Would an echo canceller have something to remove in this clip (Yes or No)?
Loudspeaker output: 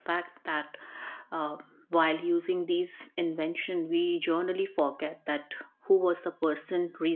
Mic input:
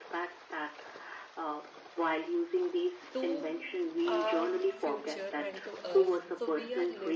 Yes